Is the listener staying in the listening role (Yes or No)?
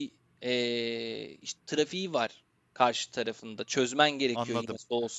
No